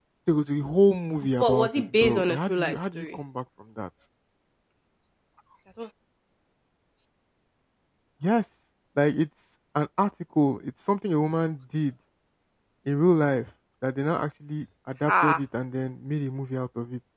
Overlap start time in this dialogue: 1.4 s

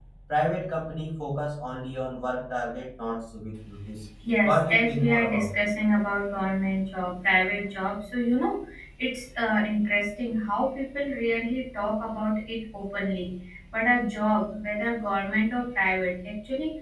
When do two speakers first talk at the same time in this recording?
4.2 s

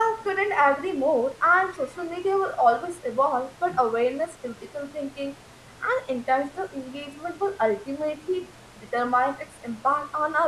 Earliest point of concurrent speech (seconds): none

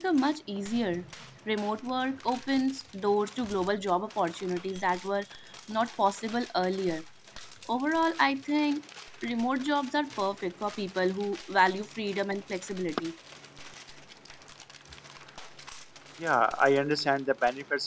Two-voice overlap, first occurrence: none

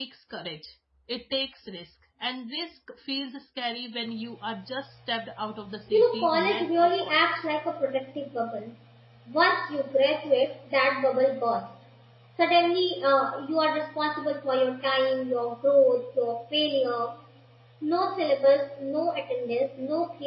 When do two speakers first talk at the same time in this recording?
5.9 s

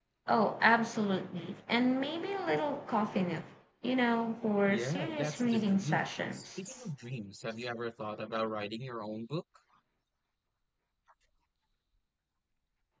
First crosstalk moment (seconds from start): 4.6 s

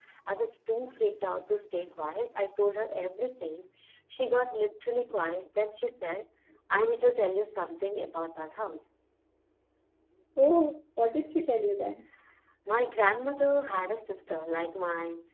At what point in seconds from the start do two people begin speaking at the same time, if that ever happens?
none

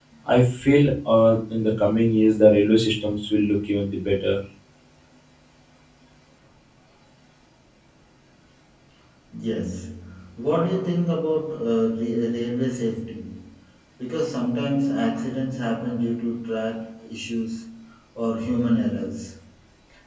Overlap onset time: none

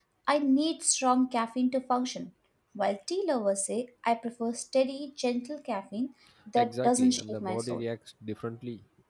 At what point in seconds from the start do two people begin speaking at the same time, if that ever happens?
6.6 s

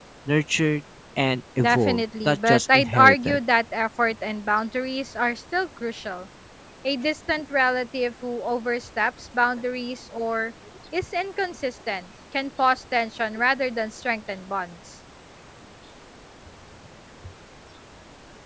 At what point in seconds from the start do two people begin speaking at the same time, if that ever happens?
1.6 s

